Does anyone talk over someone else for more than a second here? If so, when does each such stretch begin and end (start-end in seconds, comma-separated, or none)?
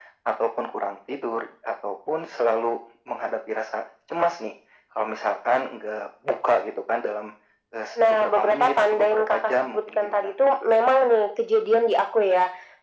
8.1-10.3